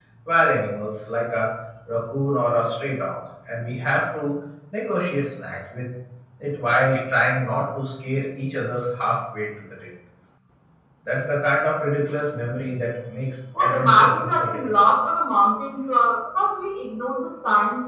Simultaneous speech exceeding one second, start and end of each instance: 13.6-14.8

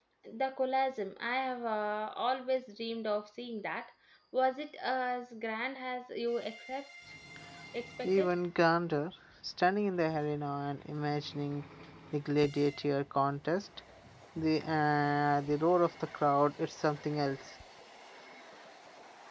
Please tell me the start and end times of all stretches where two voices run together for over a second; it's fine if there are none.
none

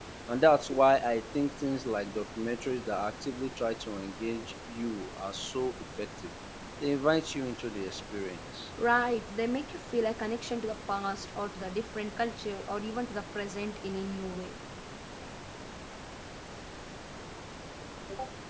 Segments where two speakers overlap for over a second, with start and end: none

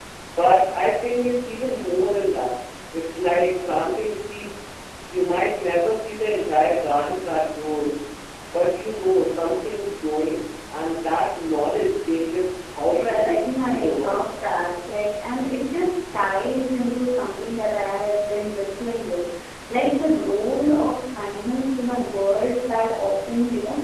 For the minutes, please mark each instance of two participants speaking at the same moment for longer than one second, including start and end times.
13.0-14.2

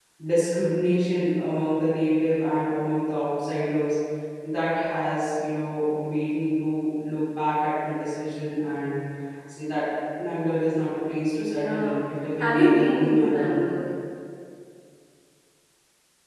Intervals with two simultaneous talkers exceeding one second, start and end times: 12.4-13.7

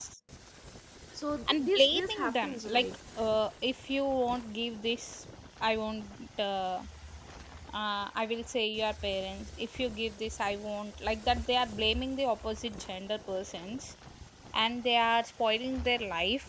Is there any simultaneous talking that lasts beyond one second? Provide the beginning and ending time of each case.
1.5-2.8

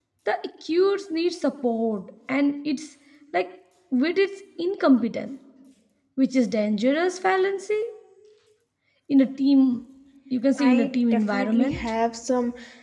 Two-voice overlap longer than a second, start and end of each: 10.6-11.8

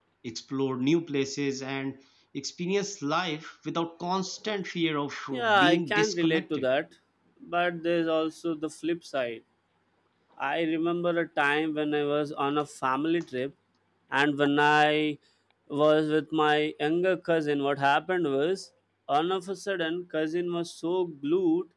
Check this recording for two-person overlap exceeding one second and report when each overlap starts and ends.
5.3-6.7

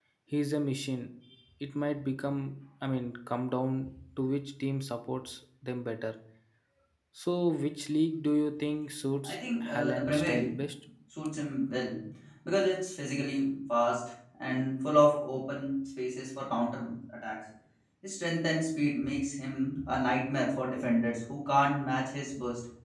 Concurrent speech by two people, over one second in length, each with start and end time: 9.2-10.6

